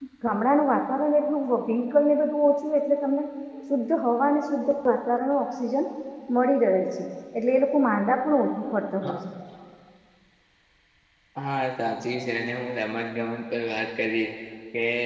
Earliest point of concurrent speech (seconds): none

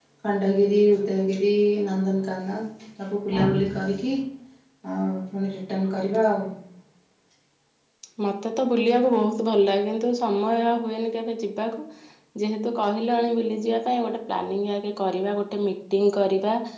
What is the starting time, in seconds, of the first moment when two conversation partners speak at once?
none

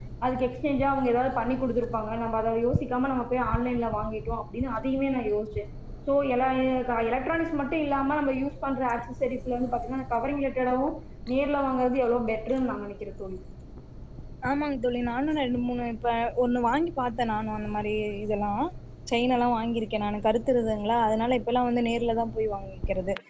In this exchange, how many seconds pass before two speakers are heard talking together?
none

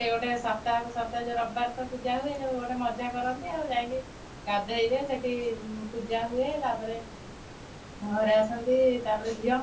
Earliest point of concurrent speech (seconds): none

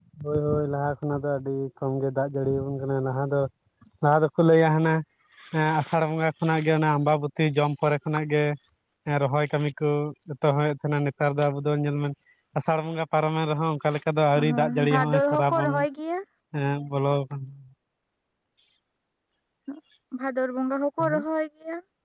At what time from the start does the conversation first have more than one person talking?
14 s

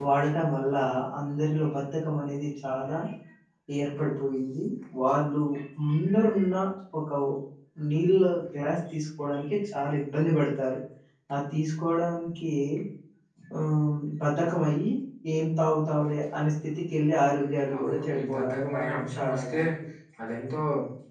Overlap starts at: 18 s

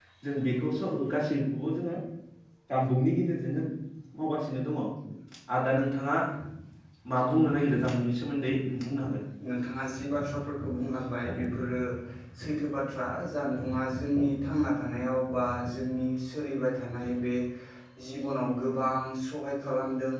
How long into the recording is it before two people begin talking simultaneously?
none

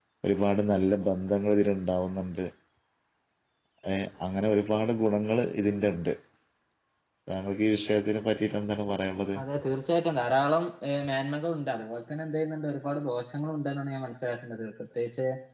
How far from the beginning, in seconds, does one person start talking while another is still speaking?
none

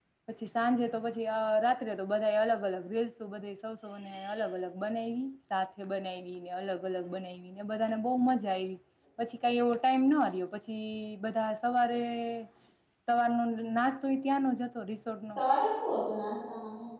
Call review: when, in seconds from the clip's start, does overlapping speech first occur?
none

